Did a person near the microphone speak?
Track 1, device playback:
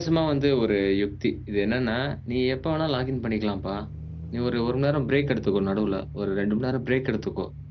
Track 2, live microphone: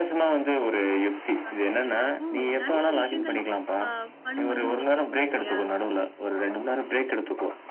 Yes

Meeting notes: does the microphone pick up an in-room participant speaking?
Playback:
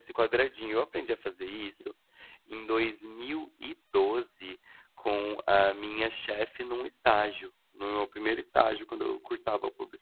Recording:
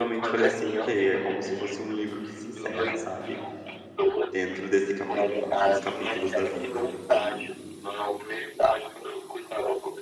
Yes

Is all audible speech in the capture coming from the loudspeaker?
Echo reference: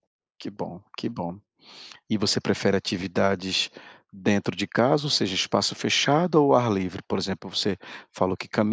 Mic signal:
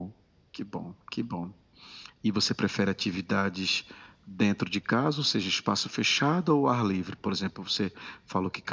Yes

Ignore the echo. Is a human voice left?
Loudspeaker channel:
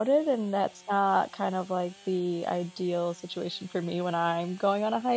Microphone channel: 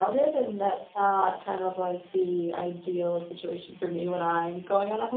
No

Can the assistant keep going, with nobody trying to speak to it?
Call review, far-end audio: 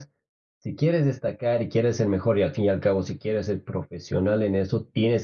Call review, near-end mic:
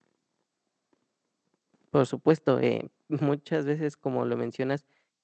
No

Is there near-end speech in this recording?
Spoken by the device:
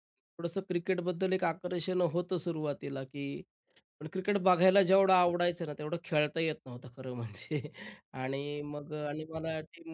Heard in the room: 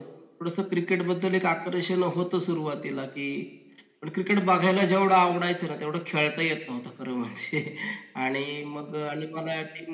No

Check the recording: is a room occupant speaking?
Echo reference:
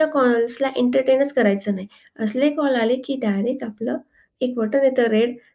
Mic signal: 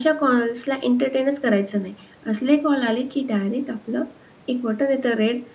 No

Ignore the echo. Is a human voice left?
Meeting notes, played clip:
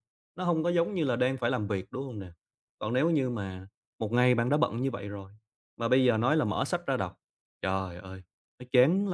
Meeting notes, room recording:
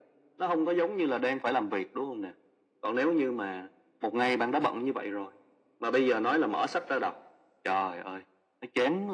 No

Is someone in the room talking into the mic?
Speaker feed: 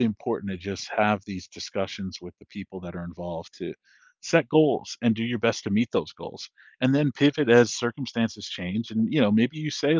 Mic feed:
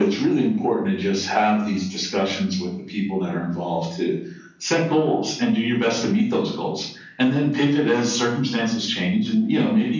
No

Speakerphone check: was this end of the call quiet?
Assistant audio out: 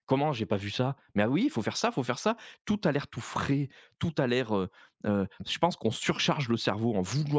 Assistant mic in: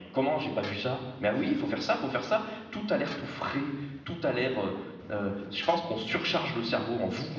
Yes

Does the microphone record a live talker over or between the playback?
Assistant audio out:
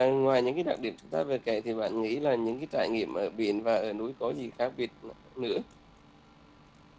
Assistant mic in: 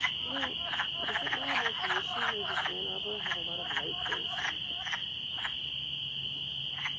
No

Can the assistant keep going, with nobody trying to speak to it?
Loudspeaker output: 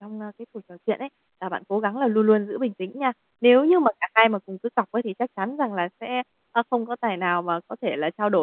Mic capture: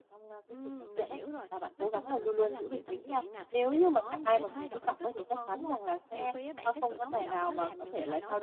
No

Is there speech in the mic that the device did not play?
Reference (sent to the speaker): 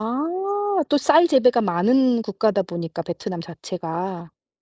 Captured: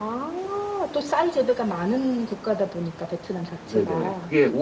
Yes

